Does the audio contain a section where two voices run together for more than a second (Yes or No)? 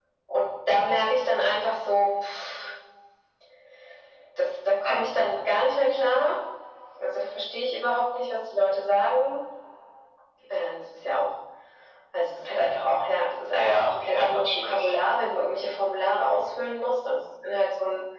Yes